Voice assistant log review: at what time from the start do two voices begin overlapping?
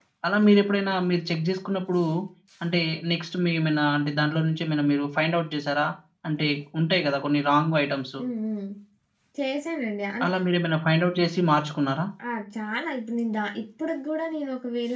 none

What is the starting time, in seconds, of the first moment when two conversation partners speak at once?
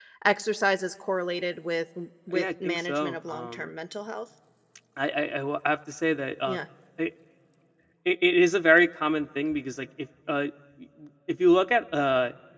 2.3 s

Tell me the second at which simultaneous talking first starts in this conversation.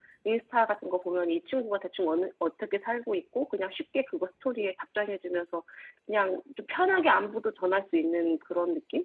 none

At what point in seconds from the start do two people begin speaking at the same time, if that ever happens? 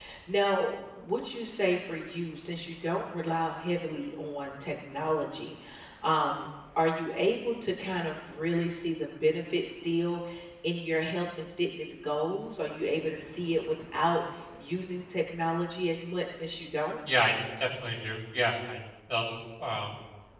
none

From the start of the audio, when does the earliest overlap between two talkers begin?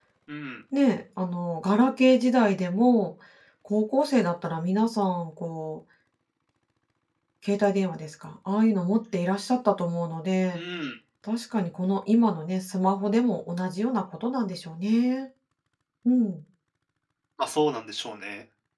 none

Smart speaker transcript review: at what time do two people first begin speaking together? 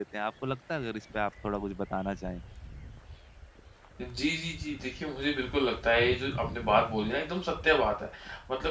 none

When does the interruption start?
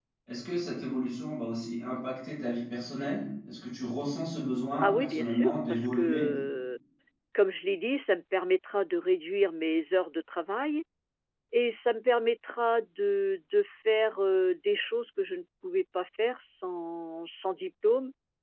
4.8 s

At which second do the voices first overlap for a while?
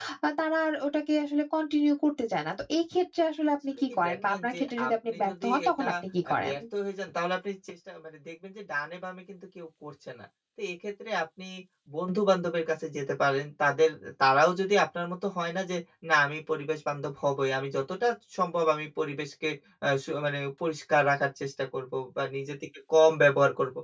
3.7 s

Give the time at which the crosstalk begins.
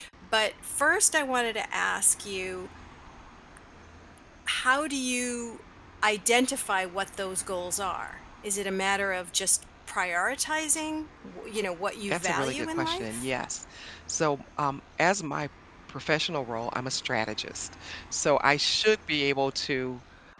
12.1 s

